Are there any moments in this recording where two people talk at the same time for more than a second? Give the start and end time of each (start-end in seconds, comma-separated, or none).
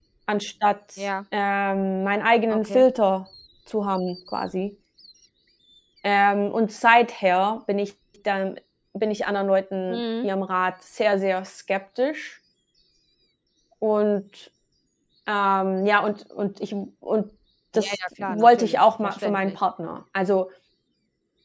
17.7-19.6